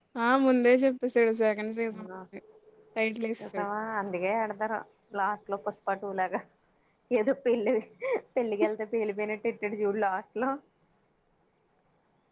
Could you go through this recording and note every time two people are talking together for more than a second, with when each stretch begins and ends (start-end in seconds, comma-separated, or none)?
none